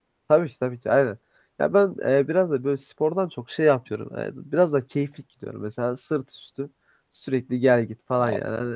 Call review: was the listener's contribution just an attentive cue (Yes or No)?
Yes